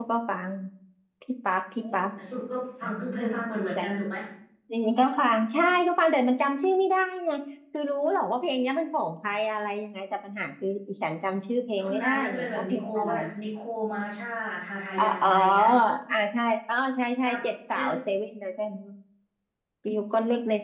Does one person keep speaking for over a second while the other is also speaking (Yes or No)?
Yes